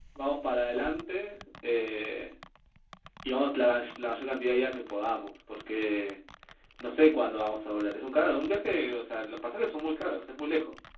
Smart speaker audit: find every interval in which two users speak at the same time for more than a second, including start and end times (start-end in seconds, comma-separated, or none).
none